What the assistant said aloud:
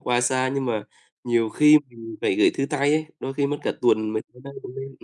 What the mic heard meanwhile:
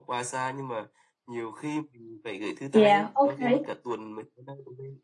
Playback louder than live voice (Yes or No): No